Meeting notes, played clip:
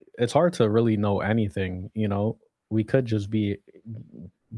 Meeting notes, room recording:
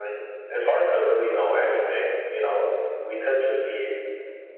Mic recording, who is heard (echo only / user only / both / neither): echo only